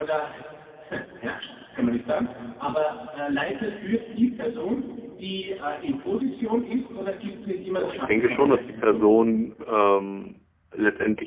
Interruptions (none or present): present